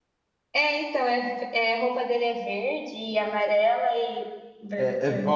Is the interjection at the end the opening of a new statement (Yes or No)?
Yes